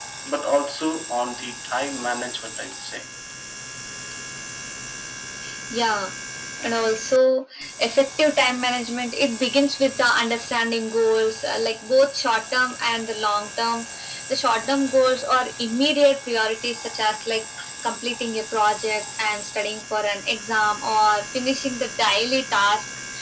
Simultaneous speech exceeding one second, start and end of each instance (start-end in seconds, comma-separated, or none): none